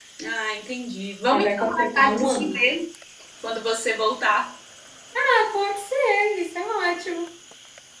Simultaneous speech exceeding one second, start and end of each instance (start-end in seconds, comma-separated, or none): 1.3-2.5